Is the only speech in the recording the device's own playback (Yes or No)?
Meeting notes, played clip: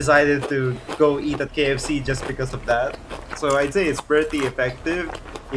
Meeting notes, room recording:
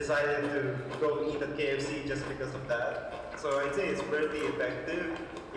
Yes